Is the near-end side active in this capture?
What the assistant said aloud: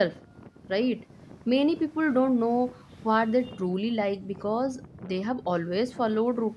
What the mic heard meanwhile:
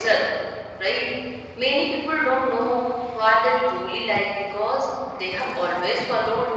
No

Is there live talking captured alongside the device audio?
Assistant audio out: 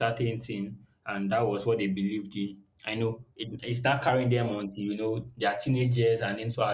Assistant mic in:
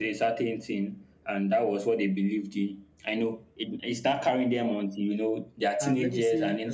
Yes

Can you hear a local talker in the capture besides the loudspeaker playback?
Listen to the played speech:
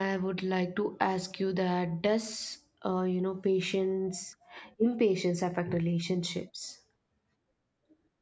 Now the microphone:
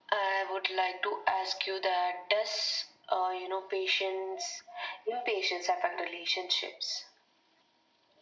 No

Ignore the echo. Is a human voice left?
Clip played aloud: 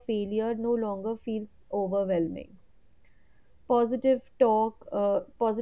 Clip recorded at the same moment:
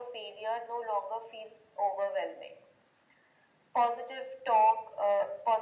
No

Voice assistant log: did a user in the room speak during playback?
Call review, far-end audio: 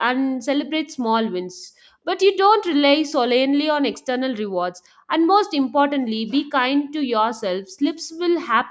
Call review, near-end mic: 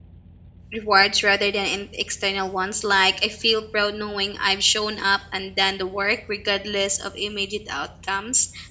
Yes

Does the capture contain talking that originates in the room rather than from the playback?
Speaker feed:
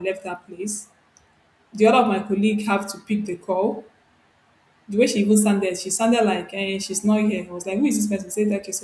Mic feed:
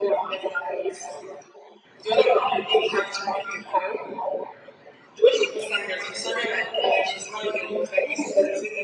No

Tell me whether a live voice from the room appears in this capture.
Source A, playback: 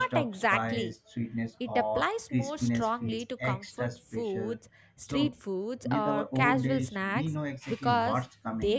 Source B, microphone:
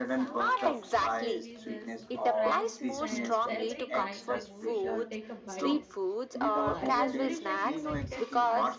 Yes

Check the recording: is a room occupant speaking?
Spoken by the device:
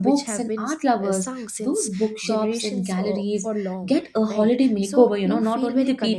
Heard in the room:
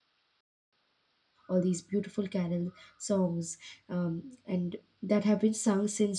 Yes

